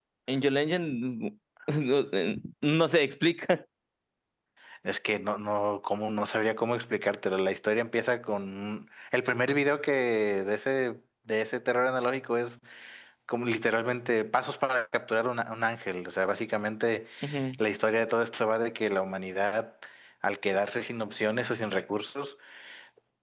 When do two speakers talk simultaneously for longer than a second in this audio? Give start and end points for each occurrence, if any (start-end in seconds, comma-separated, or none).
none